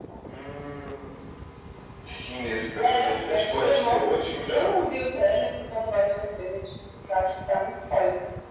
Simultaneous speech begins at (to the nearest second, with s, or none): 3 s